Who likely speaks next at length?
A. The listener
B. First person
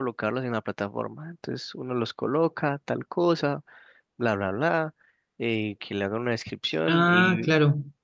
B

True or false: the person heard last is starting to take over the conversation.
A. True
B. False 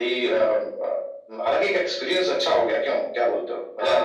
A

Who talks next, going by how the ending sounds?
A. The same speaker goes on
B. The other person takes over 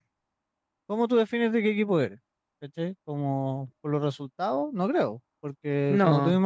A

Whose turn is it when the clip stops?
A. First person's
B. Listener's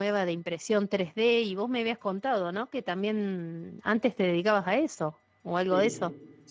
B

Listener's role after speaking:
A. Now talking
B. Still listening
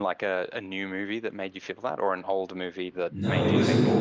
A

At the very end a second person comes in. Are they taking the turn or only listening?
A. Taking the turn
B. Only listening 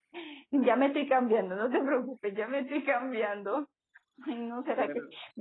B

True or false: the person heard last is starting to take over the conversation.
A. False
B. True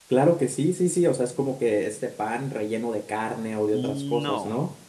B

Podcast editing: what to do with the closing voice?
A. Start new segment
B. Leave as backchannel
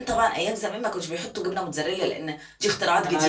A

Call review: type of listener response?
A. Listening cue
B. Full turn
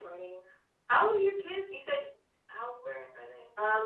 B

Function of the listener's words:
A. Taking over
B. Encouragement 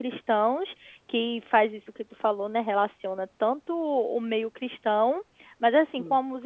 B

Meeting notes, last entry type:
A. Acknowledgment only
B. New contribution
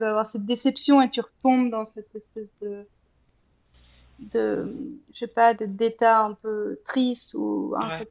A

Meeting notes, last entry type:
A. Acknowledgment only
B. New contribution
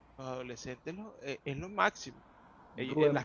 A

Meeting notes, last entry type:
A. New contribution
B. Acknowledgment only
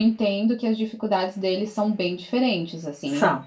B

